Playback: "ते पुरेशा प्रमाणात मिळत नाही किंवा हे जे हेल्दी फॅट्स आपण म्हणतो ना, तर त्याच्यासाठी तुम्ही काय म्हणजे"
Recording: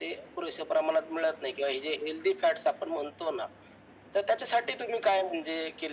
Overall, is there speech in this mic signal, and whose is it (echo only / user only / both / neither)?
echo only